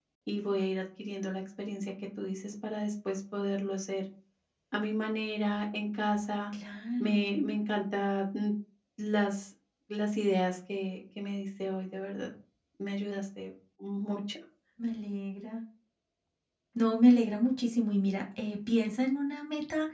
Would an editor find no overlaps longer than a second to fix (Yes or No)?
Yes